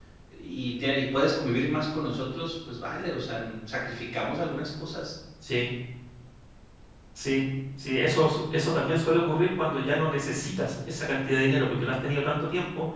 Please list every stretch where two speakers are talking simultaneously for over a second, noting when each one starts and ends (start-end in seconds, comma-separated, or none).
none